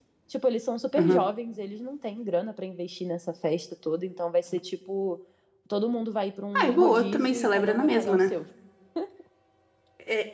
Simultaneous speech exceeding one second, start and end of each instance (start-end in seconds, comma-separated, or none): 6.6-8.2